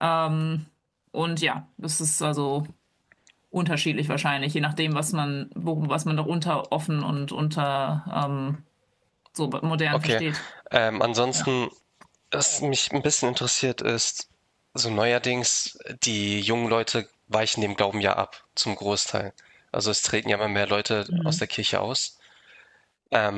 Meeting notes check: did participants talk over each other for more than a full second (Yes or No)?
No